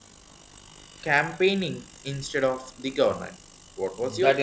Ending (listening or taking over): taking over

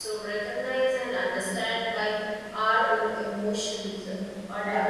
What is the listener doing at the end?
listening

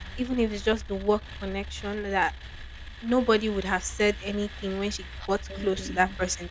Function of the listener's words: listening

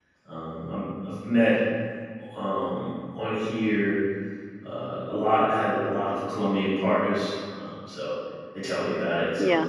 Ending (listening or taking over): taking over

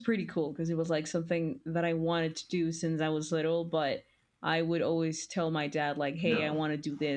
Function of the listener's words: listening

